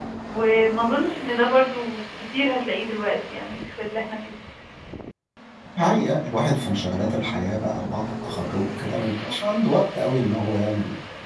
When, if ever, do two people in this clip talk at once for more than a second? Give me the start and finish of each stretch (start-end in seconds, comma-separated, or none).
none